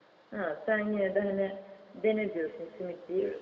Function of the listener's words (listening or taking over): taking over